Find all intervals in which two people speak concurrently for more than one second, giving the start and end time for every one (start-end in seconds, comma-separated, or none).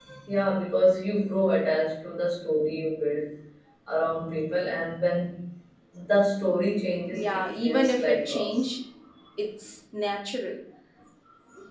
7.1-8.5